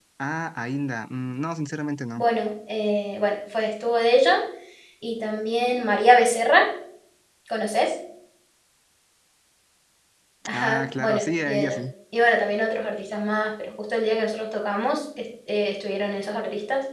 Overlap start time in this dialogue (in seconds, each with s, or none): 10.5 s